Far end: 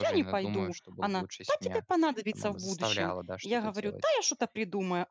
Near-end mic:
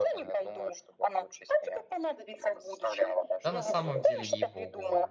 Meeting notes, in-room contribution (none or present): present